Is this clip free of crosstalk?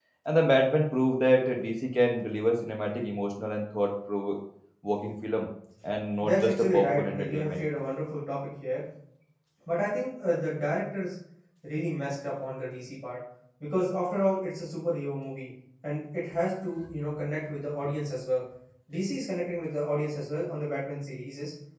No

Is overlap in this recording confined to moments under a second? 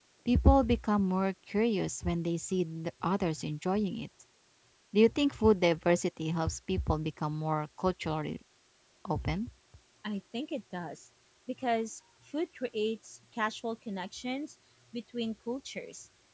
Yes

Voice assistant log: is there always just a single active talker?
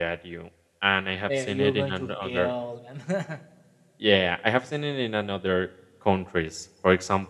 No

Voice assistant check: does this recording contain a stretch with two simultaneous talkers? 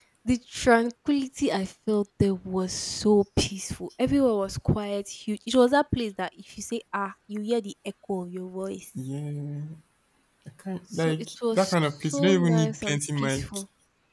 Yes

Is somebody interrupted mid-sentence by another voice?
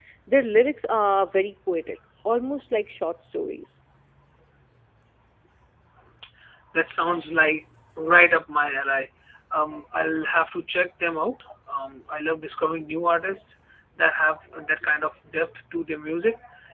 No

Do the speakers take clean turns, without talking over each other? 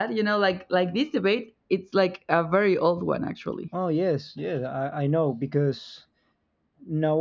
Yes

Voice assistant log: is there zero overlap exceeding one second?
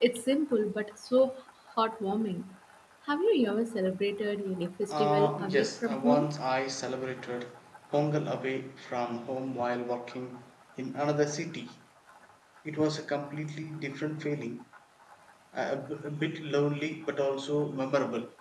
No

